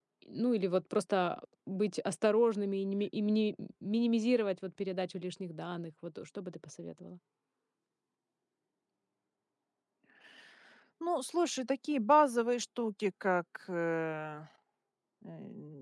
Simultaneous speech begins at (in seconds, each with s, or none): none